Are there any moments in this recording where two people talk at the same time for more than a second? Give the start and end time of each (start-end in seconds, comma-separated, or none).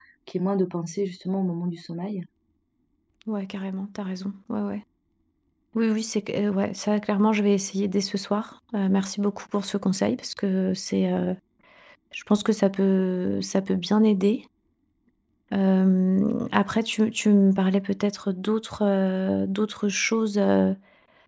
none